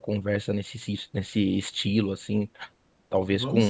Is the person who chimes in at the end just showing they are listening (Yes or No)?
Yes